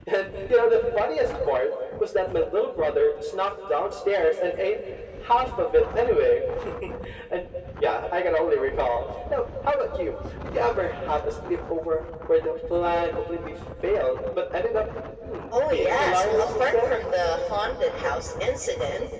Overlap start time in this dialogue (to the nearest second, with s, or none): 16 s